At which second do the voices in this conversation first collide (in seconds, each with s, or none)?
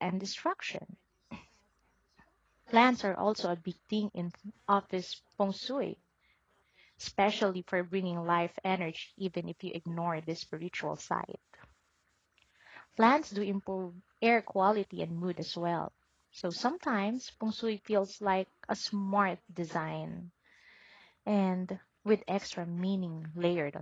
none